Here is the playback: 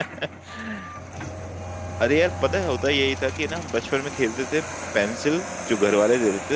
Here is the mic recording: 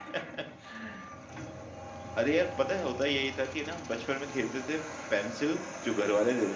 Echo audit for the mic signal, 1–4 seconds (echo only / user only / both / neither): echo only